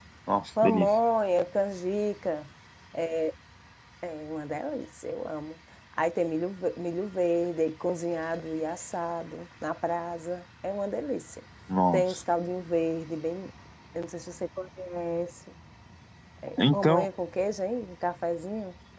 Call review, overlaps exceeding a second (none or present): none